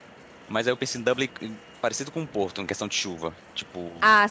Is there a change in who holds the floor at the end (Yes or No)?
Yes